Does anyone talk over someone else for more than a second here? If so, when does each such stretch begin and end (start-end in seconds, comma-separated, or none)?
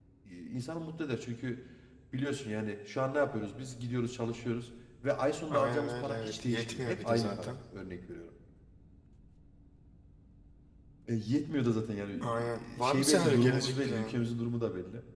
5.5-7.5, 12.2-14.2